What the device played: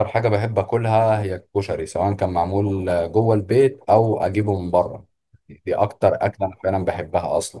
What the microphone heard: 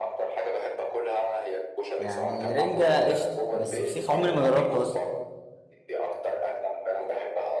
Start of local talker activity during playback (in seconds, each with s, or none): 2.0 s